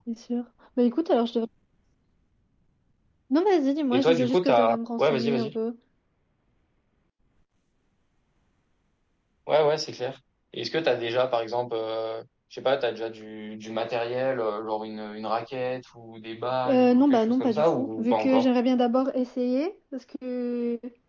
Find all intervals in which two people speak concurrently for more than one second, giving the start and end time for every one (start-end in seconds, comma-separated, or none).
3.9-5.6, 16.7-18.5